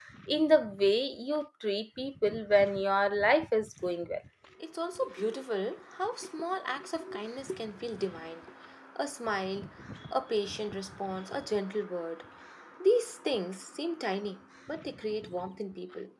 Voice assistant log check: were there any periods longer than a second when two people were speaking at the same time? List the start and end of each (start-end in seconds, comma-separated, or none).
none